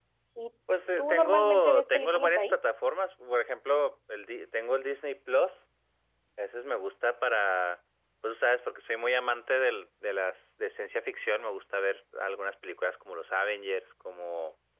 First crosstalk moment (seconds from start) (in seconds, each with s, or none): 1.0 s